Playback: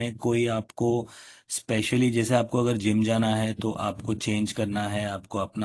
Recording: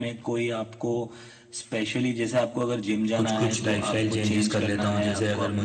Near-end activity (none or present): present